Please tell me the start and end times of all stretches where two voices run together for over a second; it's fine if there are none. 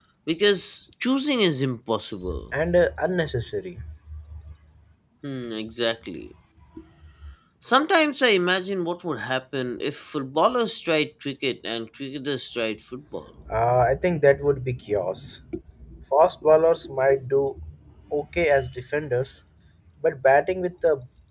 none

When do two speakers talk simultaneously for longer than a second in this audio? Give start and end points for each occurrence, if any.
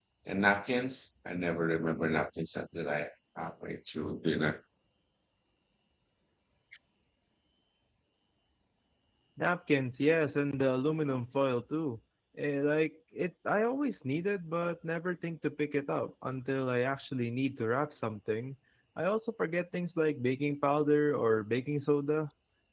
none

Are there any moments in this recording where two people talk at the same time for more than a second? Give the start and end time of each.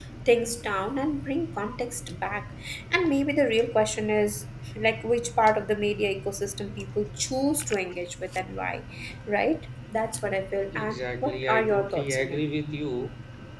10.7-12.4

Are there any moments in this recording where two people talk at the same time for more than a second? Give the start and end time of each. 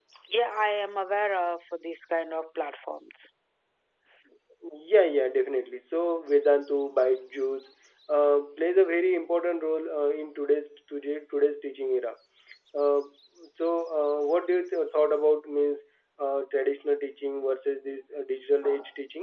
none

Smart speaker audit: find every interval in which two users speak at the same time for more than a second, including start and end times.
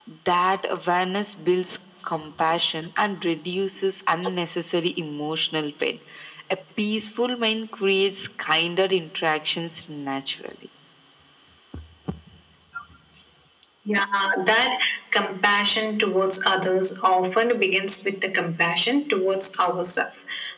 none

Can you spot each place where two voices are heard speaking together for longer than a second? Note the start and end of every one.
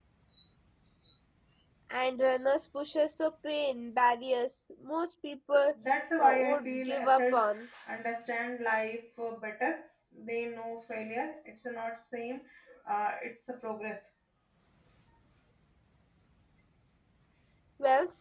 6.2-7.4

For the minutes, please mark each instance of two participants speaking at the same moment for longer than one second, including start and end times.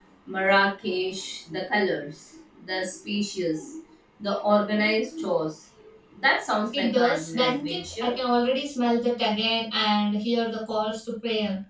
6.7-8.1

